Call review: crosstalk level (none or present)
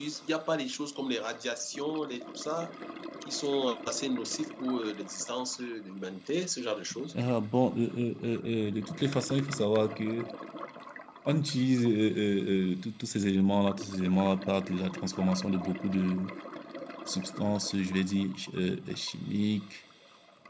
none